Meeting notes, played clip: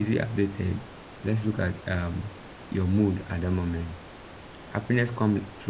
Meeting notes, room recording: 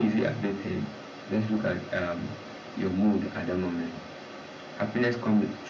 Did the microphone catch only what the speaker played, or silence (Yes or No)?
Yes